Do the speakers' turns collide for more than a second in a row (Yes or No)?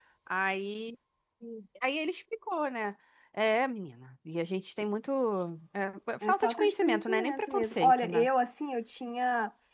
Yes